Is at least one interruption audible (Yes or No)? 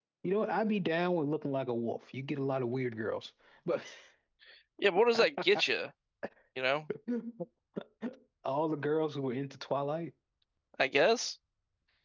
No